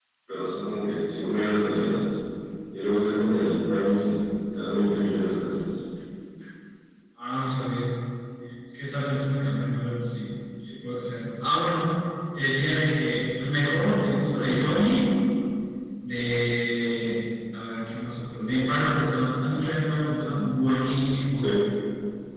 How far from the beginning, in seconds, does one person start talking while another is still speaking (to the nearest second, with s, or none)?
none